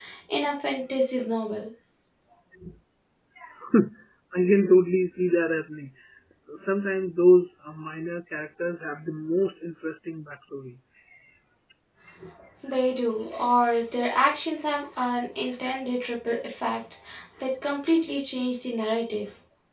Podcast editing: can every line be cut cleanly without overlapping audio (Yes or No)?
Yes